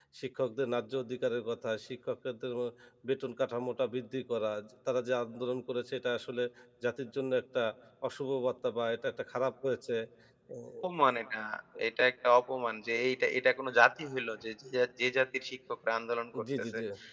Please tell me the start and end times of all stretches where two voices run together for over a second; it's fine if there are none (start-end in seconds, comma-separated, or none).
none